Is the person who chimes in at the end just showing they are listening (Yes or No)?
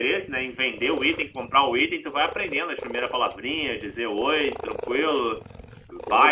No